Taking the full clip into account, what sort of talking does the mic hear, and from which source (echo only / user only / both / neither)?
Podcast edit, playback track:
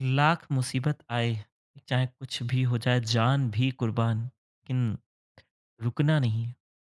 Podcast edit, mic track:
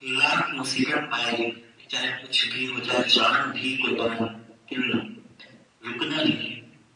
echo only